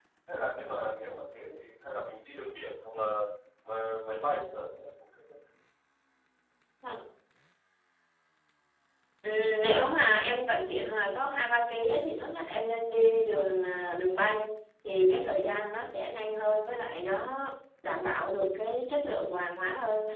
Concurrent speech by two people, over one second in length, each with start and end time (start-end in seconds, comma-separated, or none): none